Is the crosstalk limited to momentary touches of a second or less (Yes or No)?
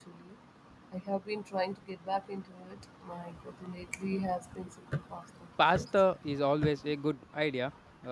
Yes